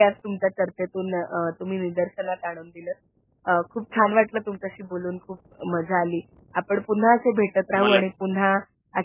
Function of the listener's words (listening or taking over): listening